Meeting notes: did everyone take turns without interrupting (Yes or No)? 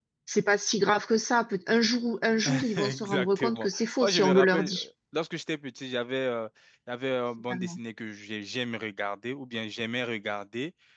No